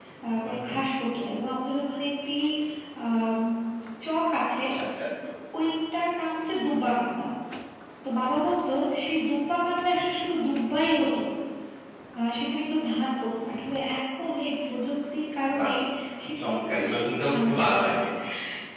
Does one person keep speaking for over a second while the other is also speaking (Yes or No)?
Yes